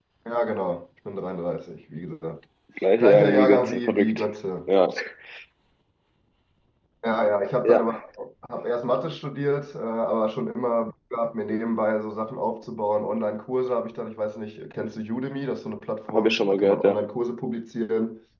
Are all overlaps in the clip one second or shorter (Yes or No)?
No